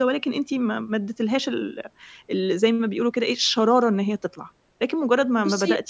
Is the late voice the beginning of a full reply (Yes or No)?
No